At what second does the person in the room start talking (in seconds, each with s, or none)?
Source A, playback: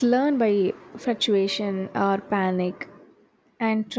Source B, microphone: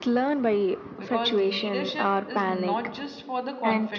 1.0 s